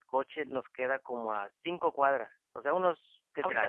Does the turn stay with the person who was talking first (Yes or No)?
No